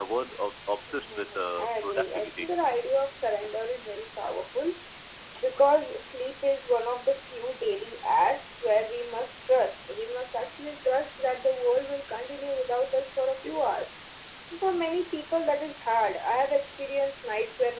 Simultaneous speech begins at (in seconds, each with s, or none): 0.9 s